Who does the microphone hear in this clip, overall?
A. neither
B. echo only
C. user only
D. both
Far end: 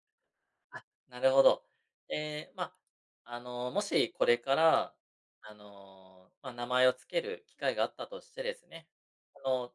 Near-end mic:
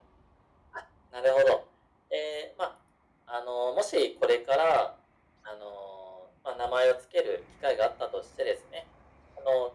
B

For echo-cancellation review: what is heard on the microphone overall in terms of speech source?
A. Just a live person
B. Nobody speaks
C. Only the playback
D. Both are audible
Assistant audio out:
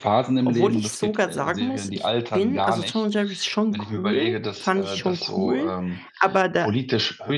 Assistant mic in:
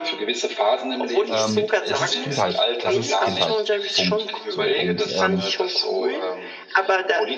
D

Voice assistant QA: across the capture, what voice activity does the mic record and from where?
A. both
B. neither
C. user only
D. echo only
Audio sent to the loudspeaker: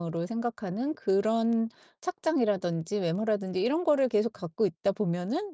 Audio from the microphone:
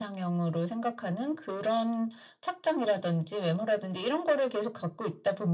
D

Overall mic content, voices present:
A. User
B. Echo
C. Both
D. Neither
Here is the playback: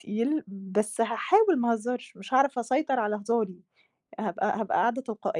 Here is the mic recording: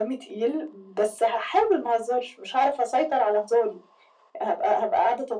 B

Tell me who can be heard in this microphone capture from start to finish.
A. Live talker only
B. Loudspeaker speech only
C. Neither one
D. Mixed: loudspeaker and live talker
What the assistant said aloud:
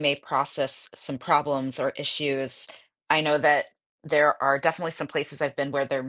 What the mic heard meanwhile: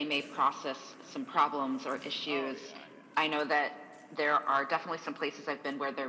D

